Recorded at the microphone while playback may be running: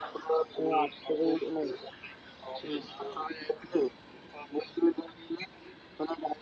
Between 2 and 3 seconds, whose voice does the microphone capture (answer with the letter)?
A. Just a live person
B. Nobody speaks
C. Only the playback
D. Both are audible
D